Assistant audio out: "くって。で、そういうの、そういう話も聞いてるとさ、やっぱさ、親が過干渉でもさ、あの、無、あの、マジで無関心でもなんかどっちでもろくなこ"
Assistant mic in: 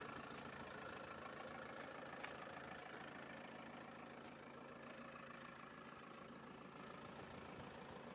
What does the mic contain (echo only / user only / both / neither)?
neither